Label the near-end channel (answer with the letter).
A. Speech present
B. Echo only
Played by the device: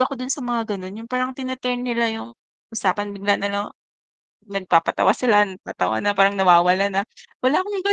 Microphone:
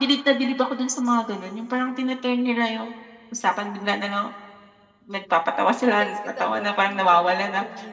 A